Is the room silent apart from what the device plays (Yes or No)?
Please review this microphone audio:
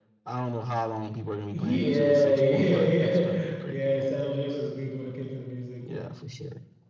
No